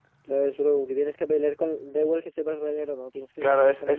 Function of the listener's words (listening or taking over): taking over